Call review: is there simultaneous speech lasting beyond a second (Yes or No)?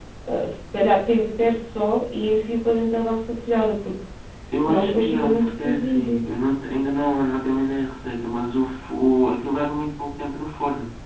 Yes